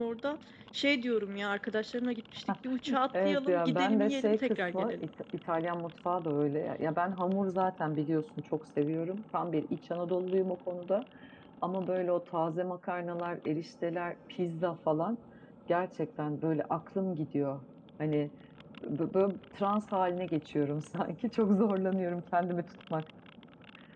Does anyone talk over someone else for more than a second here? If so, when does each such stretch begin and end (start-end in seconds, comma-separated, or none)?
3.2-5.0